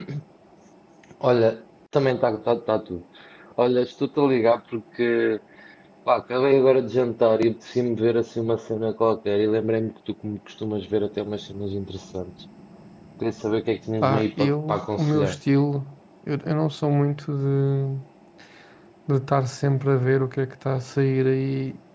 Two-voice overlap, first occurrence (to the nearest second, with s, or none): 14 s